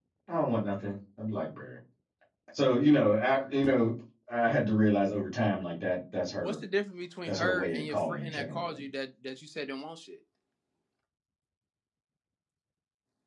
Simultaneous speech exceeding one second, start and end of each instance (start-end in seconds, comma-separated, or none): 7.3-8.8